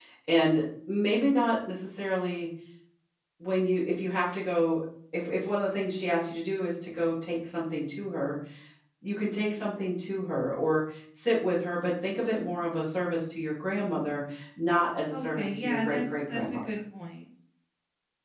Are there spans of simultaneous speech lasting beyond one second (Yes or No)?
Yes